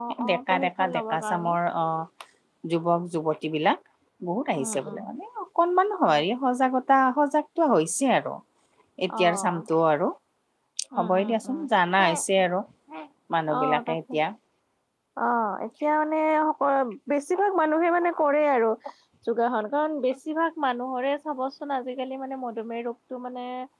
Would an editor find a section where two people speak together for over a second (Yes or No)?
Yes